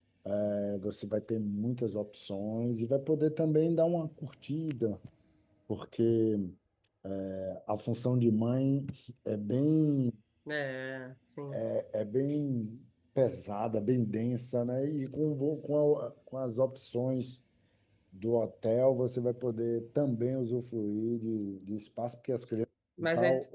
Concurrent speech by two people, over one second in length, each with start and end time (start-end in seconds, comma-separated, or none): none